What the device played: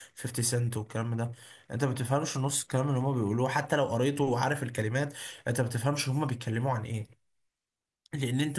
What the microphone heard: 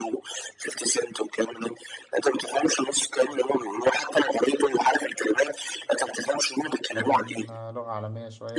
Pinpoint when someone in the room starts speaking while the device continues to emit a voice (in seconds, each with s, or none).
6.9 s